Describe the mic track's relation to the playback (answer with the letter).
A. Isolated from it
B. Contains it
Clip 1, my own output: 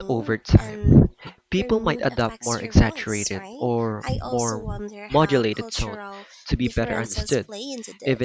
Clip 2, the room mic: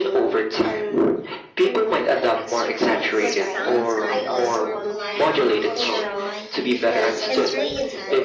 B